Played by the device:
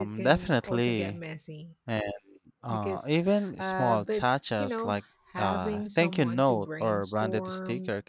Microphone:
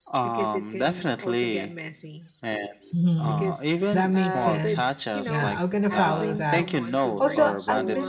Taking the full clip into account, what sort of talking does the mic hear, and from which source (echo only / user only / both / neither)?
both